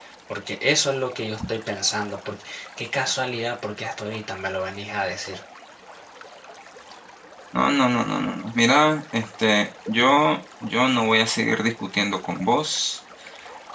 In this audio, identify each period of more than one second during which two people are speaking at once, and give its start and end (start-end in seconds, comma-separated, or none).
none